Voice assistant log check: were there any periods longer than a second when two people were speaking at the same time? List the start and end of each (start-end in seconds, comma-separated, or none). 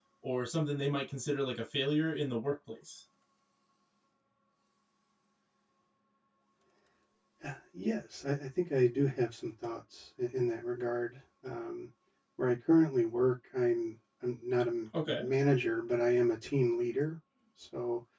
none